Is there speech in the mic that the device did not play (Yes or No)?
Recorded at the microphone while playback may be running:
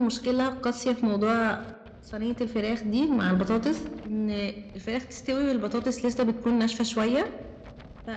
No